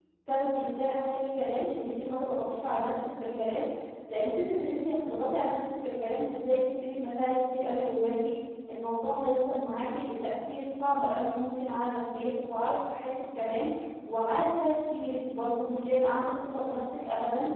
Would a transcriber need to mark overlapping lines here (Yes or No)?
No